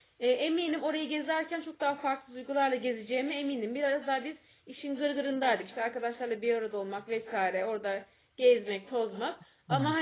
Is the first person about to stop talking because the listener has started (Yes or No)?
No